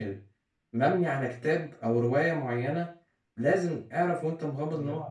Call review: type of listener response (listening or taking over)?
listening